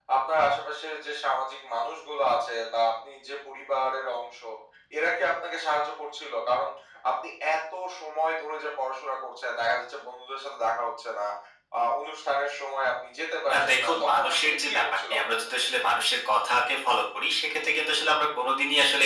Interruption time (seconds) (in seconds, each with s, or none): 13.5 s